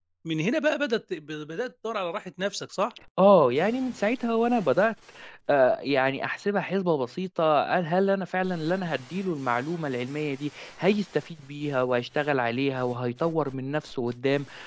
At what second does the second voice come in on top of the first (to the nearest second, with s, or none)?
none